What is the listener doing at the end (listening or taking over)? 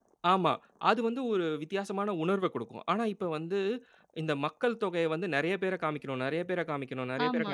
taking over